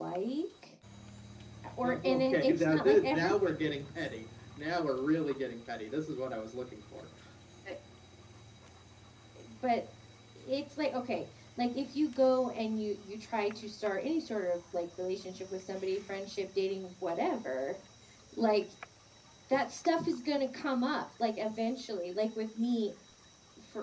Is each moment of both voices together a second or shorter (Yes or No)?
No